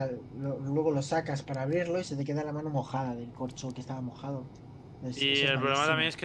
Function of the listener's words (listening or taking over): taking over